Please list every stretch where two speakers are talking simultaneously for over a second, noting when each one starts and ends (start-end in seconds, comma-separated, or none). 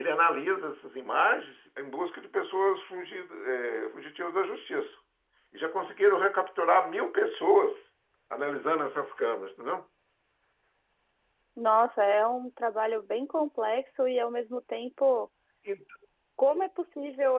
none